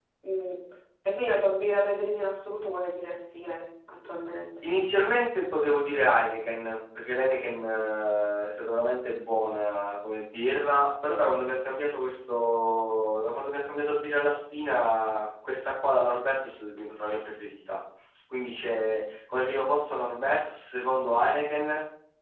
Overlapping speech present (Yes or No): No